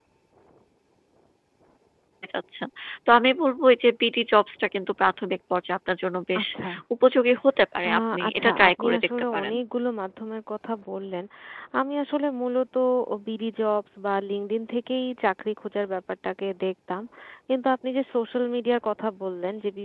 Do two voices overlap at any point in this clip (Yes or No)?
Yes